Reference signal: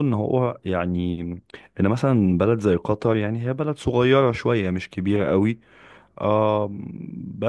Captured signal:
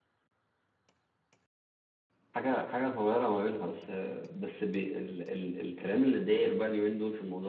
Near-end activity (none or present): present